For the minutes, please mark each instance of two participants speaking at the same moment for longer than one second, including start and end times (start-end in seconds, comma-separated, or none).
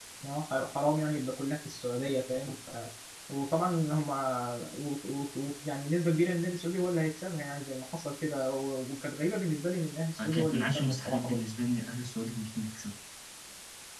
10.2-11.4